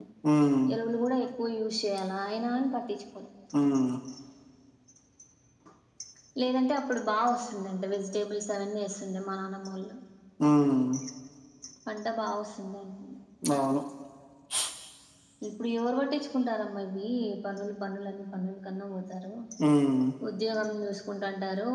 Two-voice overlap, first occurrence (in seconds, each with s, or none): none